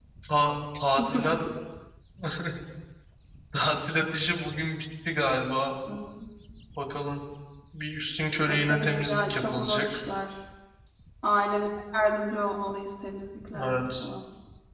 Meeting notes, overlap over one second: present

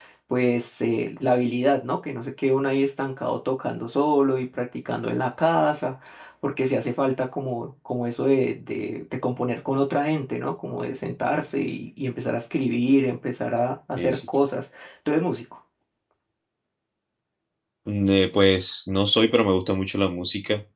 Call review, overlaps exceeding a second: none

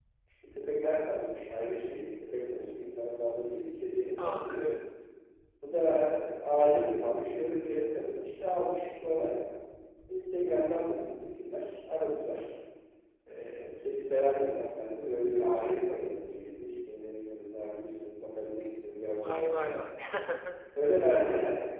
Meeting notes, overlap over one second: none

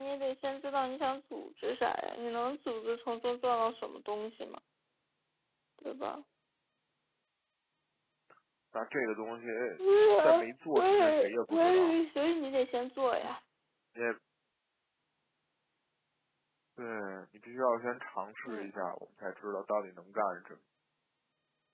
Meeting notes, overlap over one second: present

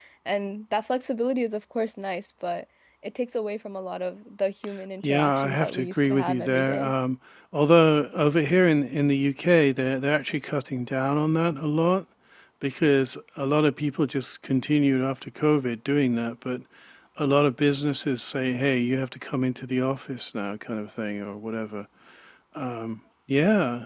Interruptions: present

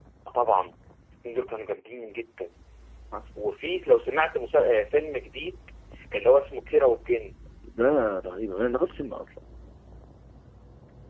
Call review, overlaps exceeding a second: none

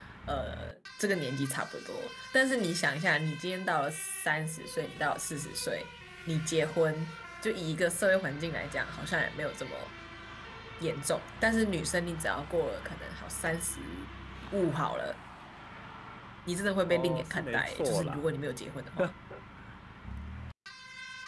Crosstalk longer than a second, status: present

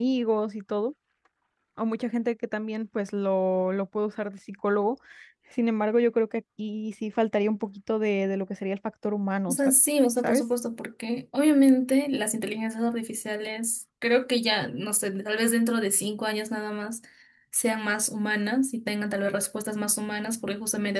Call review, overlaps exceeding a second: none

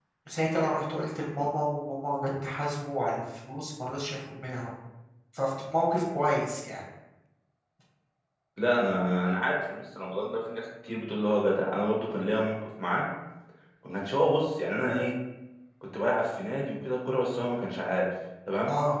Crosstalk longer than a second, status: none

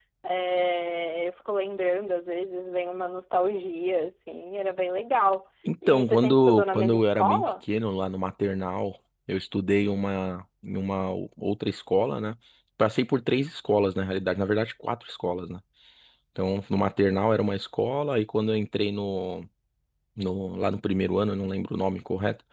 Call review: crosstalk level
present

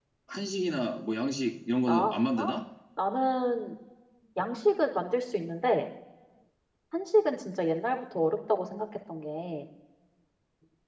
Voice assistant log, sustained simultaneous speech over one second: none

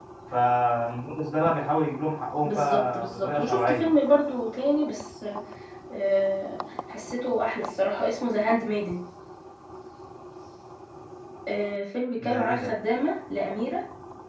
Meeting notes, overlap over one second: present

